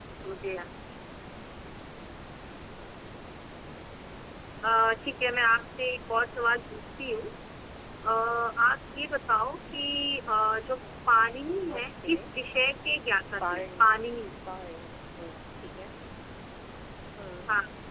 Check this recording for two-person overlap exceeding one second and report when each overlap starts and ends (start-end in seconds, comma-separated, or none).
none